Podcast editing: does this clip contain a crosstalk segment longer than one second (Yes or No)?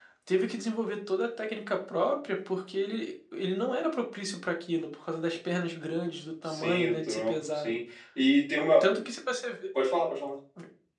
Yes